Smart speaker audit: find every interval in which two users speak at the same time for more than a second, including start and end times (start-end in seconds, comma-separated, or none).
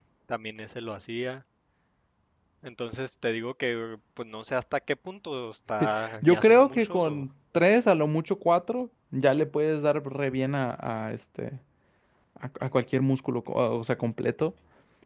5.8-7.2